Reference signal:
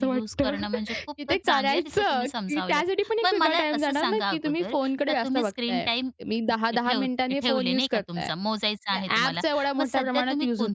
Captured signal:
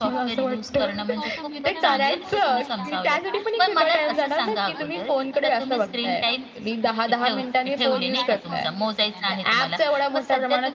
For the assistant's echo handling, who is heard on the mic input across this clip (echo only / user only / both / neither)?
both